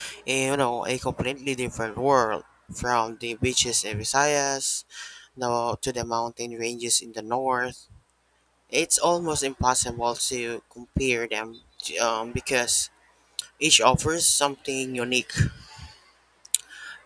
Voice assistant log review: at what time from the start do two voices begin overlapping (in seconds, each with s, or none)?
none